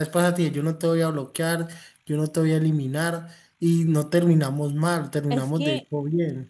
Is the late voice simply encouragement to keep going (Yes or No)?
No